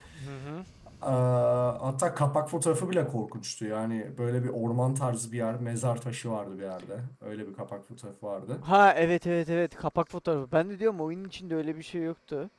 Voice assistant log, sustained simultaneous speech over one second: none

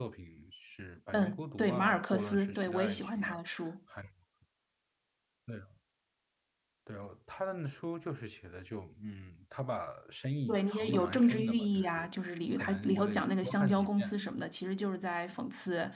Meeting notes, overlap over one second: present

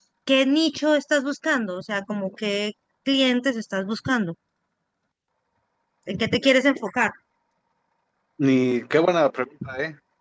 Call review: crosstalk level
none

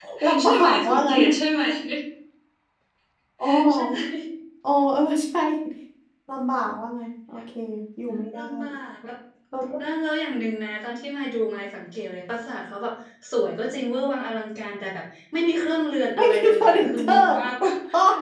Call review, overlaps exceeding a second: present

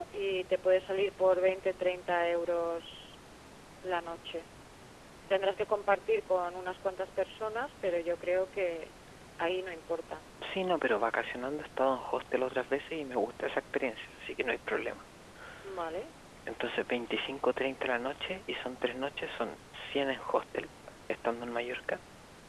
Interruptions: none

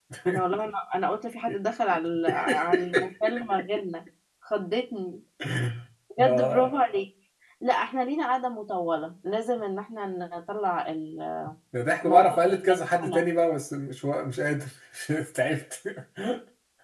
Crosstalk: present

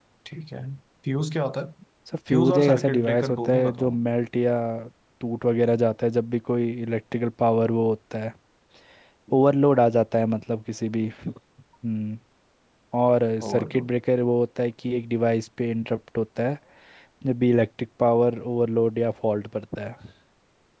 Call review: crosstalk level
present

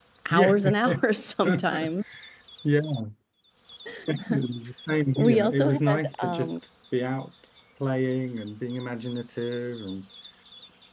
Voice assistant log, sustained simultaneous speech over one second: present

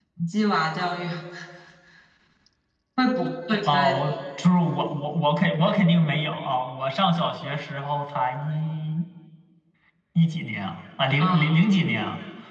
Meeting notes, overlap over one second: none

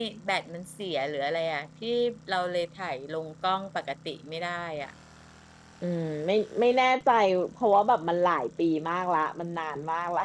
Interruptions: none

